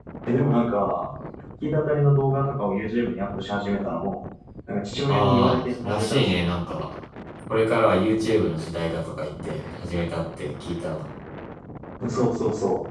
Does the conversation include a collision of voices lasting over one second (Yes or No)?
Yes